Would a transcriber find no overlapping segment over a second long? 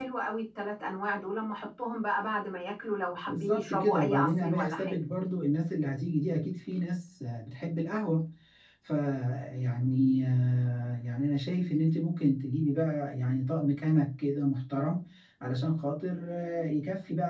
No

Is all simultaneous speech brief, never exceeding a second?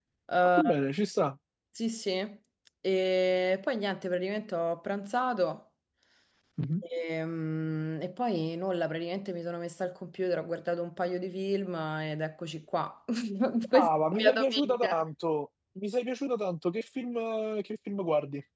No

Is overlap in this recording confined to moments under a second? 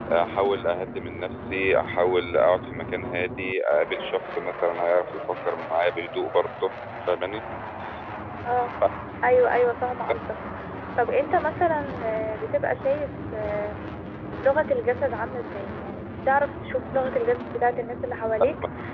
Yes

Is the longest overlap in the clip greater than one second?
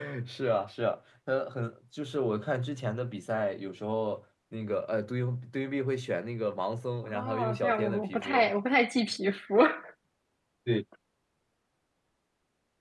Yes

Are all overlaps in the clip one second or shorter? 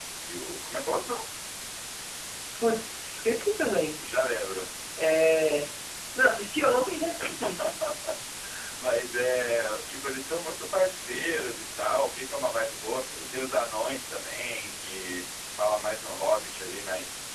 Yes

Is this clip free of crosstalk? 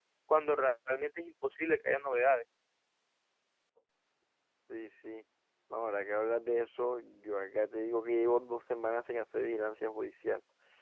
Yes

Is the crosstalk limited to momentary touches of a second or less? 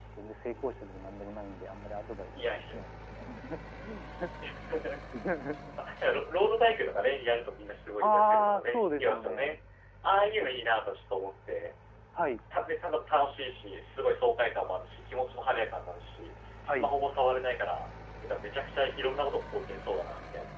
No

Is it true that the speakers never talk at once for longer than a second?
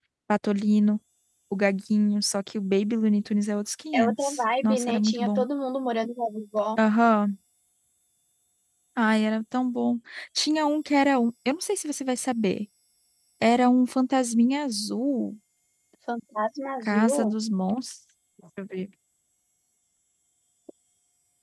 No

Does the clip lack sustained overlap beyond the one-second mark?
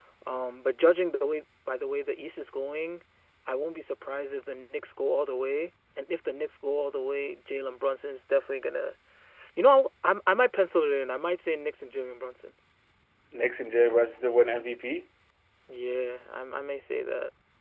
Yes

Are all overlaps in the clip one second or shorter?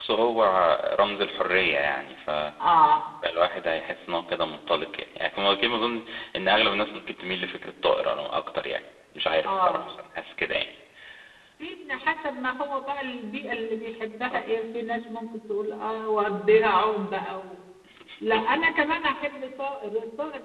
Yes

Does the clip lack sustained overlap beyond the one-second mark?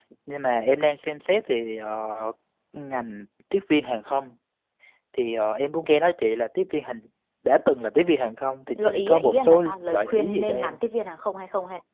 No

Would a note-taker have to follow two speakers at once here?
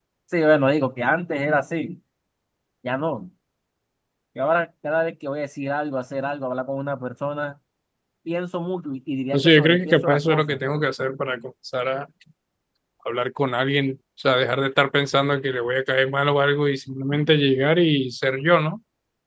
Yes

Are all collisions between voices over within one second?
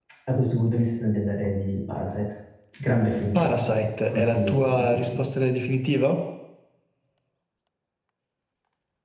No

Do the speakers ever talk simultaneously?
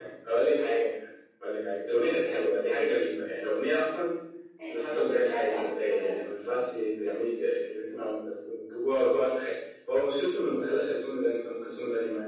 Yes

